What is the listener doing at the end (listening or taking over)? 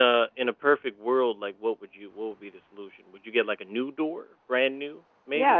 taking over